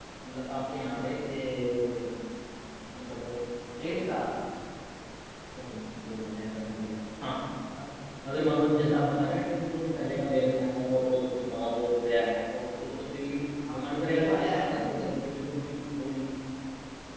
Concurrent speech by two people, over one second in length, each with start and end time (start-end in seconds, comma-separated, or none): 13.7-15.2